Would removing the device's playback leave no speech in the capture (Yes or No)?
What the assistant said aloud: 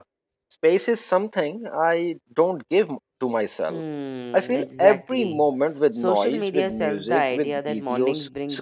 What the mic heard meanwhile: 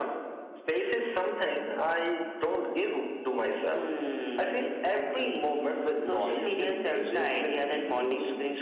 Yes